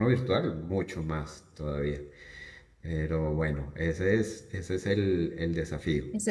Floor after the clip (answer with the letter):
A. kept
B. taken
B